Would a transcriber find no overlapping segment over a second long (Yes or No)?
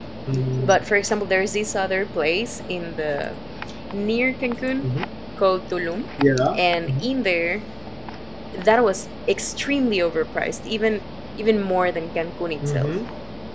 Yes